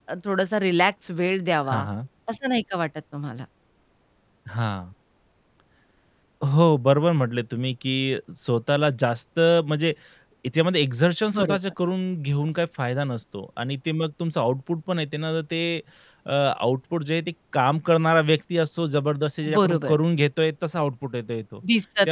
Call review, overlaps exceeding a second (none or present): none